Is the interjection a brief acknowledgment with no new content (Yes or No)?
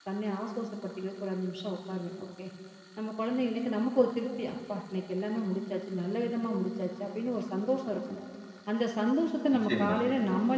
Yes